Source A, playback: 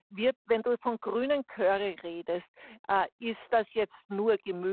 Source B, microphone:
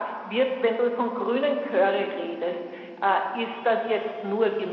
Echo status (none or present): present